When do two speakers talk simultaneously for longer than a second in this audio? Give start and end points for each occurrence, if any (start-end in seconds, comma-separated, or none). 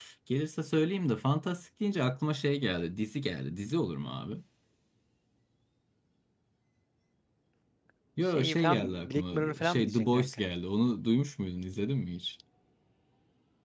8.3-10.2